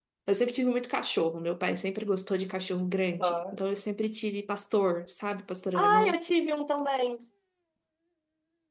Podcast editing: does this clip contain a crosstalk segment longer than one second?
No

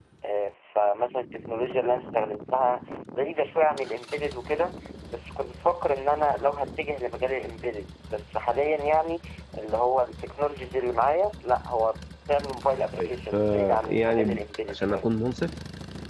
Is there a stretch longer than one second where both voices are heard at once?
Yes, from 12.9 s

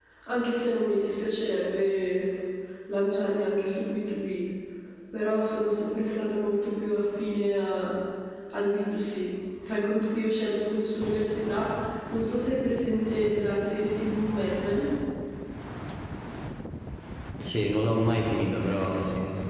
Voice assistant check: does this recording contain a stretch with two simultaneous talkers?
No

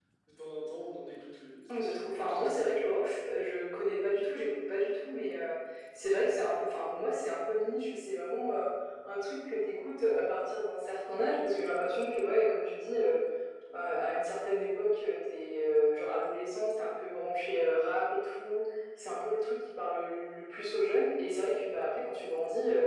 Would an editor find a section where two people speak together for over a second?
No

